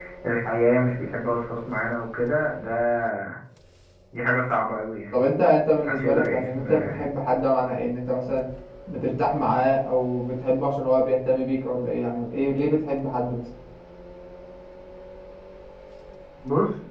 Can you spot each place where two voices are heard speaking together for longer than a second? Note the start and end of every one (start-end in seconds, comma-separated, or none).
5.8-7.1